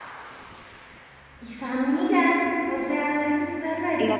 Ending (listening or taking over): taking over